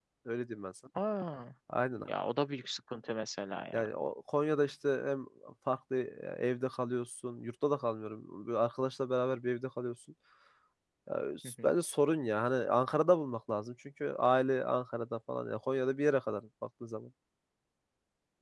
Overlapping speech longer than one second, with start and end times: none

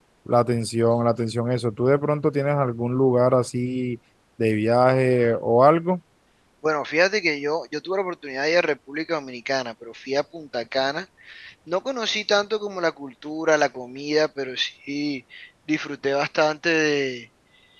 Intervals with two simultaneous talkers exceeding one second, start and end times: none

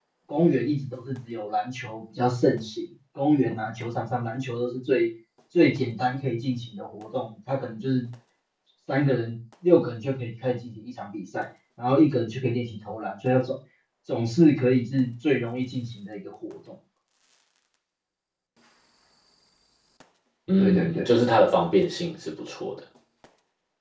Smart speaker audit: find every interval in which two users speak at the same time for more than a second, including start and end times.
none

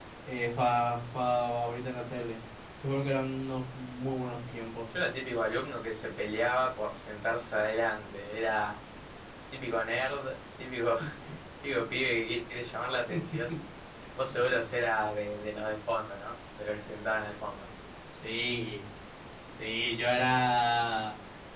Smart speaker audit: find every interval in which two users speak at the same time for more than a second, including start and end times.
none

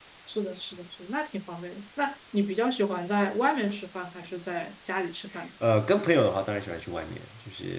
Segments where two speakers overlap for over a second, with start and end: none

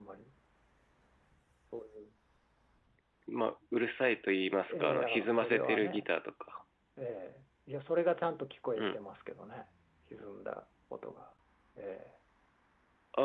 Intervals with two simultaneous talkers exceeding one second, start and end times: 4.7-6.1

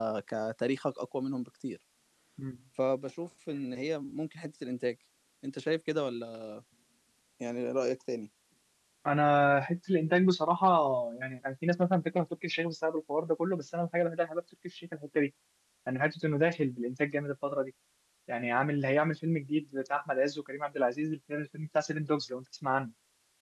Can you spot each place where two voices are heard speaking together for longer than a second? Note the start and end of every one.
none

